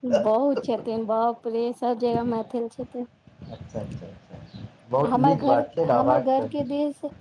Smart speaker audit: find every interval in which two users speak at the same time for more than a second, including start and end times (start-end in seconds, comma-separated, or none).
5.1-6.5